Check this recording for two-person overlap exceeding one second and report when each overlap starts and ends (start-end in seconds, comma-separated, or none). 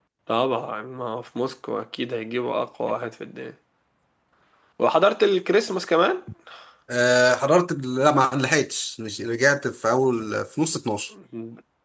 none